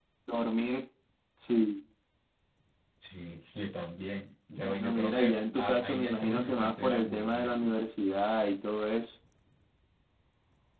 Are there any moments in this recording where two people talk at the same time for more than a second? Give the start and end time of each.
4.6-7.7

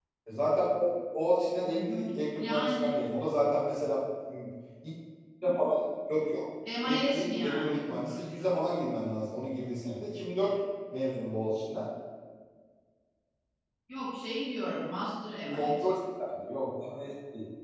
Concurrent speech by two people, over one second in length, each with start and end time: 6.8-8.6

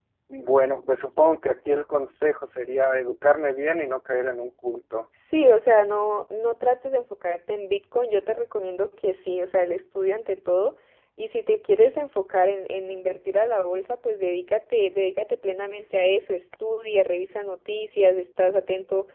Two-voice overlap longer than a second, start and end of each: none

